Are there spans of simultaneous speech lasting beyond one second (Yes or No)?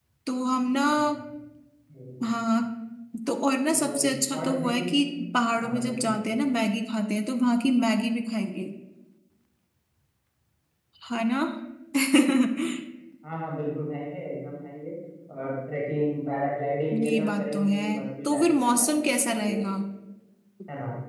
Yes